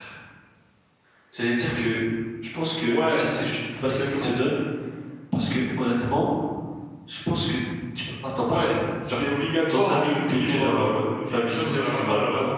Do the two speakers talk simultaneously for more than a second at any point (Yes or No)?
Yes